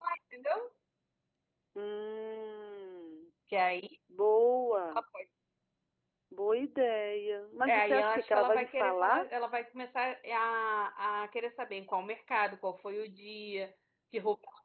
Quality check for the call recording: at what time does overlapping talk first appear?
7.6 s

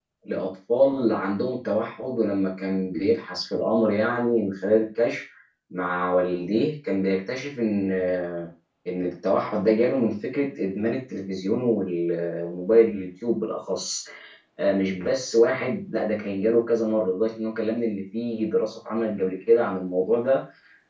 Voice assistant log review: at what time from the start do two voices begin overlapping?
none

